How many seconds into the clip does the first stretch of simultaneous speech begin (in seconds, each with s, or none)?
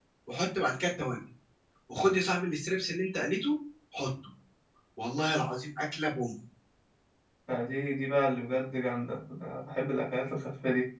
none